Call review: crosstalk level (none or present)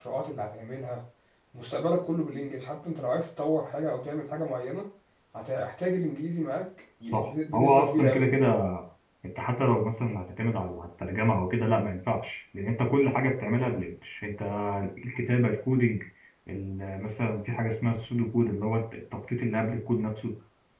present